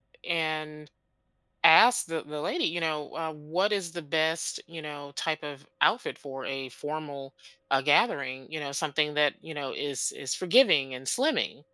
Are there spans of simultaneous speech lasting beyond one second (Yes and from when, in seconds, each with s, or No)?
No